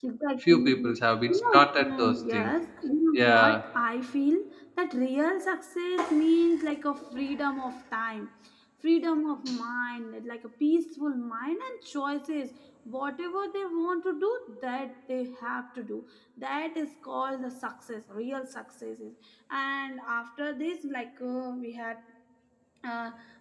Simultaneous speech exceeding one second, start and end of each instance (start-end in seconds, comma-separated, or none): 1.3-2.5